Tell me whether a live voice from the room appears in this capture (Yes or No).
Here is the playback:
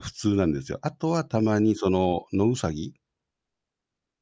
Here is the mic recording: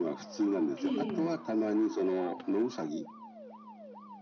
Yes